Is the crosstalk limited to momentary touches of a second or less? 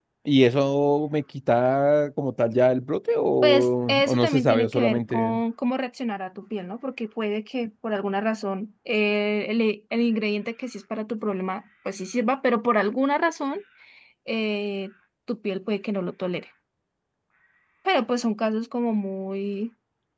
No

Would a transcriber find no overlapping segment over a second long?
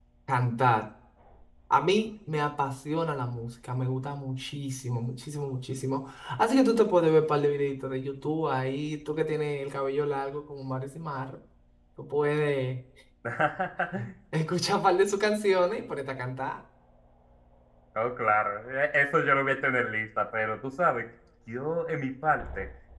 Yes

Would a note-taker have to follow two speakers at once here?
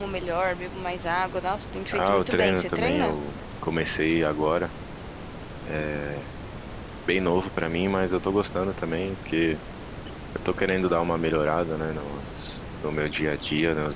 Yes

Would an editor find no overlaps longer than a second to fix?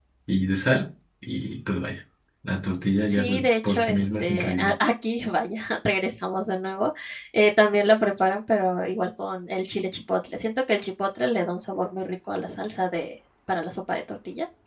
No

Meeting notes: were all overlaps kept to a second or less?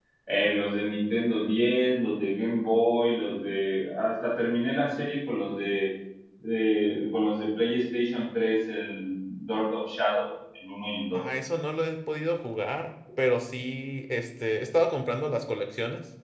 Yes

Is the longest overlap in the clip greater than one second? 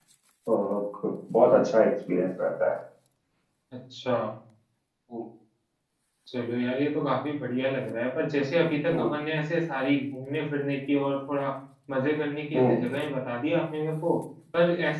No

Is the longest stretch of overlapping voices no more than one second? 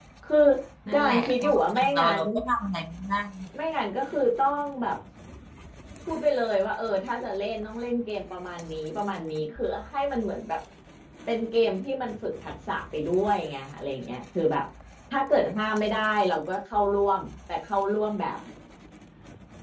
No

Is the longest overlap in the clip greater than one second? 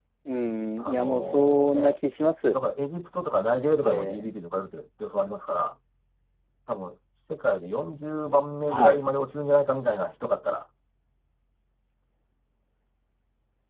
Yes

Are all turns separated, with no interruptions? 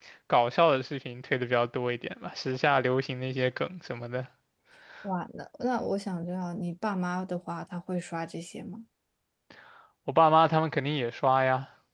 Yes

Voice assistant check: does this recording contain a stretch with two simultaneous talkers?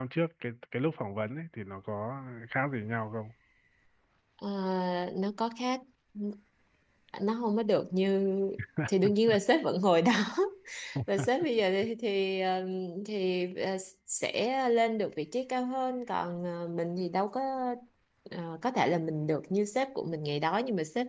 No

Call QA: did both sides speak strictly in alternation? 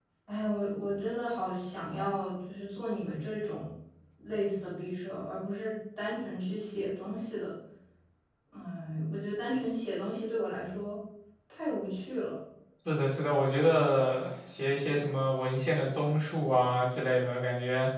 Yes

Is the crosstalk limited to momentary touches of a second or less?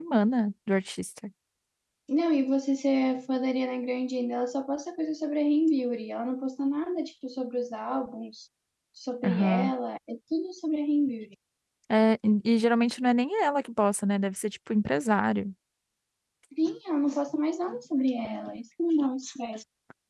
Yes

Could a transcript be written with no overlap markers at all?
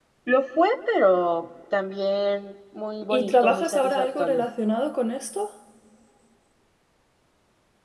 No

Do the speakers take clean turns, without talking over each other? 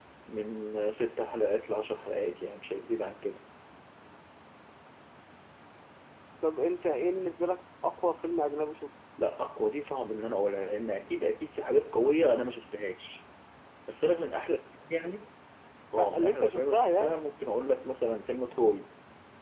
No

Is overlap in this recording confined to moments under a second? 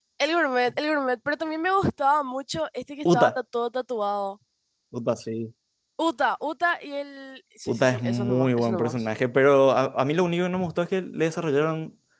No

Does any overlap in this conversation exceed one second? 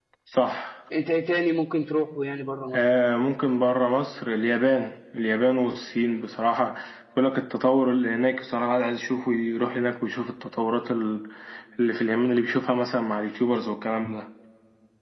No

